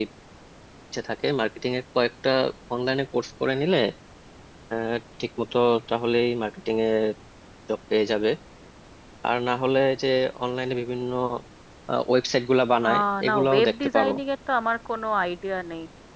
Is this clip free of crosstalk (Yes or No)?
No